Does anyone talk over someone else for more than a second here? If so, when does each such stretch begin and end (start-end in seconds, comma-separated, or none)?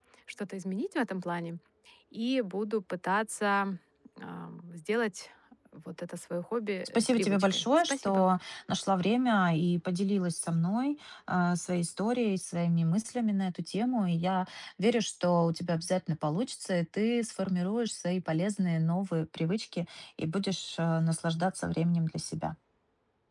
6.9-8.3